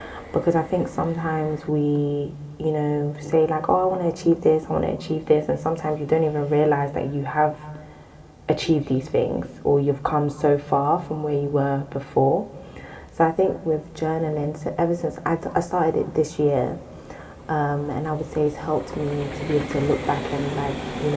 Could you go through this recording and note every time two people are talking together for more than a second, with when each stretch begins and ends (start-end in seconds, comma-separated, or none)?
none